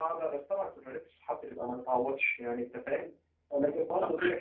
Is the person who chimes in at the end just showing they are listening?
Yes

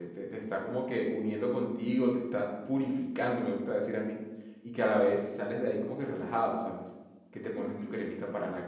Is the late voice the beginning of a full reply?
No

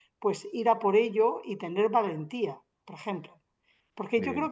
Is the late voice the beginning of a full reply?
No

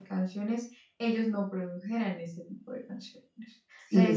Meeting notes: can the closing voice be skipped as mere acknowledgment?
Yes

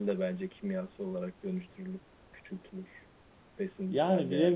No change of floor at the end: No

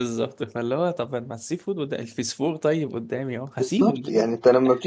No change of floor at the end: No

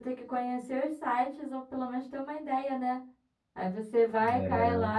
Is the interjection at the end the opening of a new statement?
No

